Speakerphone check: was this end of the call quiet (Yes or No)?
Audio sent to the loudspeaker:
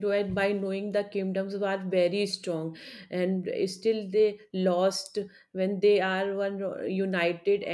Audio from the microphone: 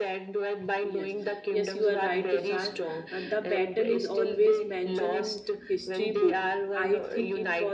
No